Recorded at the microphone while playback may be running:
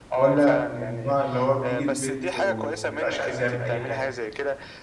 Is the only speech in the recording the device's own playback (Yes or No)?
No